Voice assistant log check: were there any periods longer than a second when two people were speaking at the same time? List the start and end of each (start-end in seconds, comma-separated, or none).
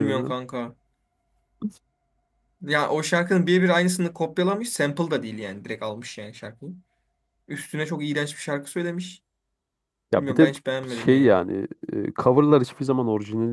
none